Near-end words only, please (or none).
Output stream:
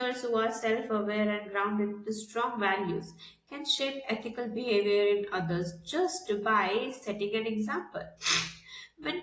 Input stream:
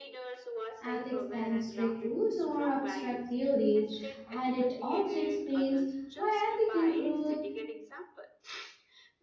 ethics than strict rules or abstract theories. And it also explains why ethical growth